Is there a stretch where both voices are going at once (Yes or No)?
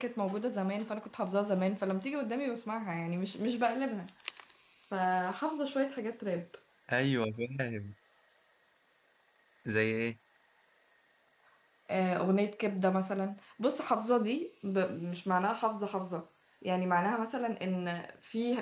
No